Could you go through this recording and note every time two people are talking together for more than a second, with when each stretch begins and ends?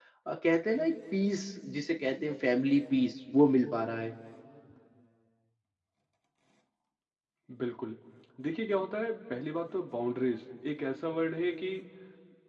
none

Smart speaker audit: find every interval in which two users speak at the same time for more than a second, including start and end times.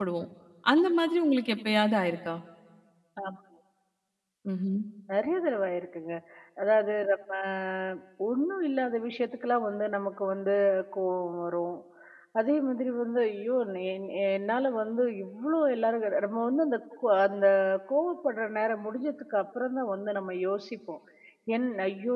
none

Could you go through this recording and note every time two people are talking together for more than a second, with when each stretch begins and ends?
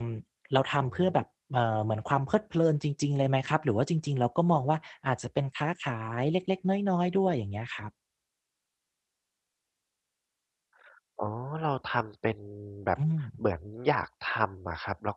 none

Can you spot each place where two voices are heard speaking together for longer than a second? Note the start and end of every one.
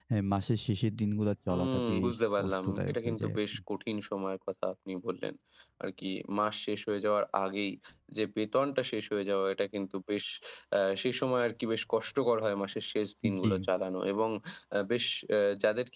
1.5-3.6

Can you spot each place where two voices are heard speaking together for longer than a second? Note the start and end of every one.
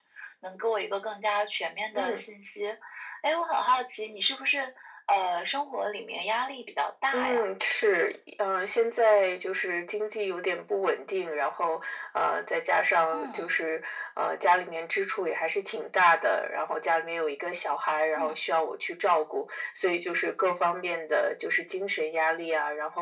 none

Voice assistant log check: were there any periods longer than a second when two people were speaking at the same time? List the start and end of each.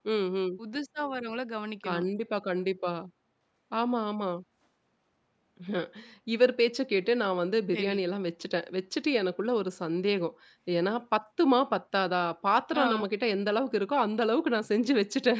none

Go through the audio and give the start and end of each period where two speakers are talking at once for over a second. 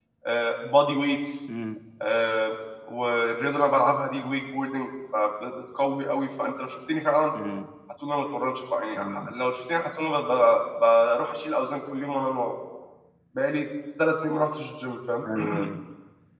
none

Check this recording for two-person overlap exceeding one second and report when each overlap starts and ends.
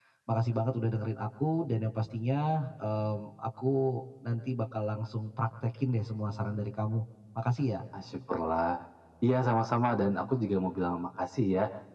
none

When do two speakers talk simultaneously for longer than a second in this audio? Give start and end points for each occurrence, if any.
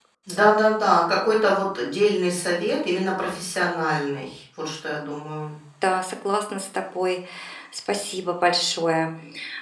none

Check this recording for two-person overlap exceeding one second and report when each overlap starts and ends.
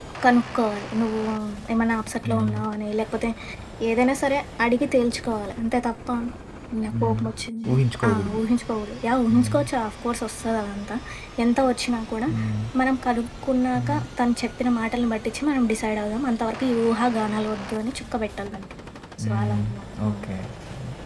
none

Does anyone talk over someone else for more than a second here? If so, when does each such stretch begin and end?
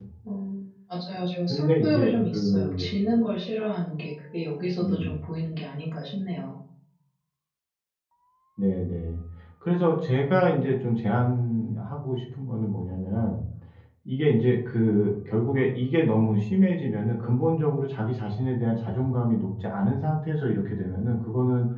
1.5-2.9

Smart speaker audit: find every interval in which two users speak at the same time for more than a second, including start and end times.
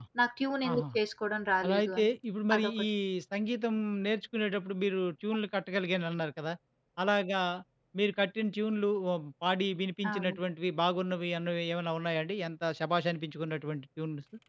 none

